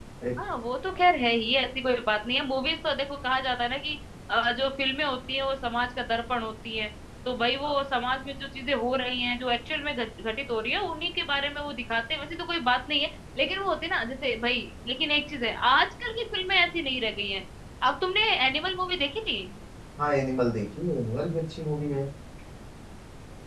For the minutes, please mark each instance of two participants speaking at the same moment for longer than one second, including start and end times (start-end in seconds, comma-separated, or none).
none